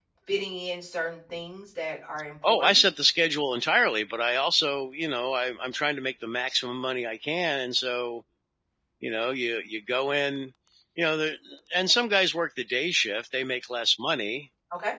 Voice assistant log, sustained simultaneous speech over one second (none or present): none